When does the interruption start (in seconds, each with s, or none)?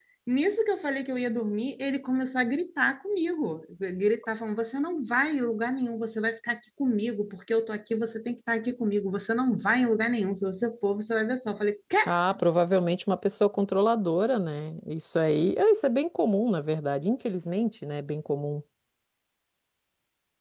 none